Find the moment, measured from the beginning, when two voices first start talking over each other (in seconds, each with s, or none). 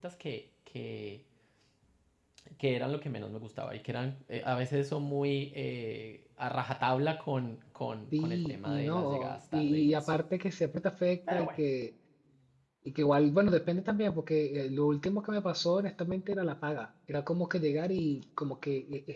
8.2 s